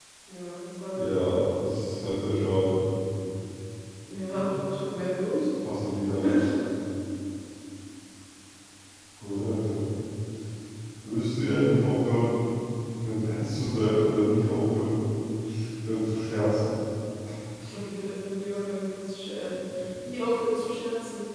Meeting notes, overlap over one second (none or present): none